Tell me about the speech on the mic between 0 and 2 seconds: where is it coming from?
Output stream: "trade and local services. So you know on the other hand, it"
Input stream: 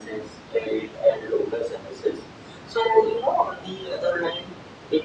echo only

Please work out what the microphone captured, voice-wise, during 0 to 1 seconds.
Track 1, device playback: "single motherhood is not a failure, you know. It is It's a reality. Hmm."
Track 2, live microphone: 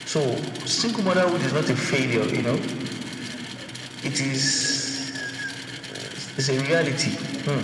echo only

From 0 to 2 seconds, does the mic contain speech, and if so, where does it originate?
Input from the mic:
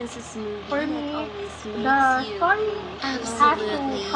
echo only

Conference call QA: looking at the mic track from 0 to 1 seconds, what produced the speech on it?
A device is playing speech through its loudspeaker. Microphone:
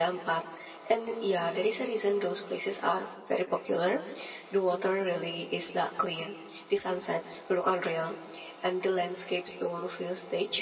echo only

